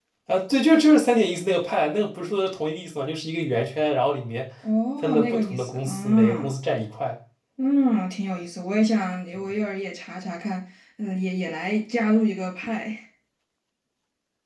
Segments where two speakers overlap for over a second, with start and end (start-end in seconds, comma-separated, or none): 5.0-6.5